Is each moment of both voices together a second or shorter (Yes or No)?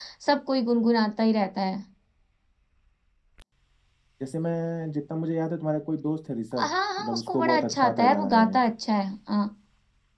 No